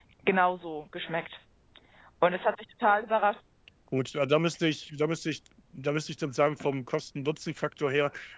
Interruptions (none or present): none